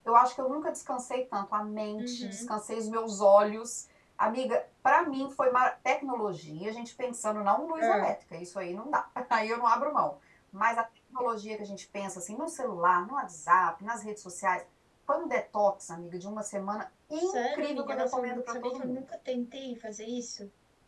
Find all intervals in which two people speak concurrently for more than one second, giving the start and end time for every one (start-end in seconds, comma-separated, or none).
17.2-19.0